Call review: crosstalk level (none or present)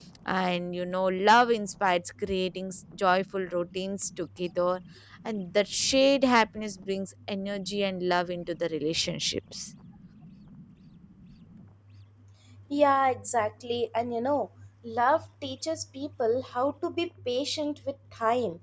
none